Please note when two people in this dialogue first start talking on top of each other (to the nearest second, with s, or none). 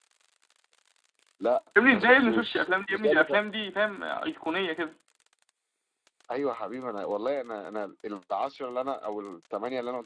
2 s